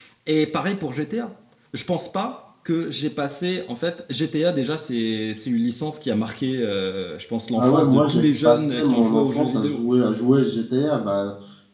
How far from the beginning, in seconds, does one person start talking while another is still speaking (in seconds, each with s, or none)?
7.5 s